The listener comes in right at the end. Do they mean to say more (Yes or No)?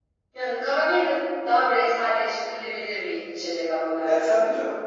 Yes